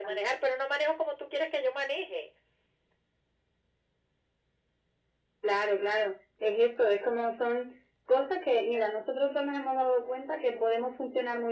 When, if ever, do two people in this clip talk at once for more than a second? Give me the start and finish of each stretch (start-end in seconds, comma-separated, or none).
none